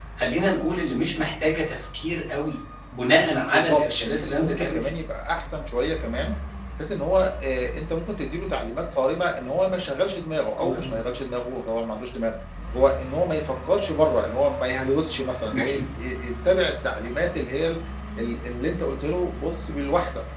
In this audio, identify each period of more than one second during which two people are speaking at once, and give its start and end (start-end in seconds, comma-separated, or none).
3.5-4.9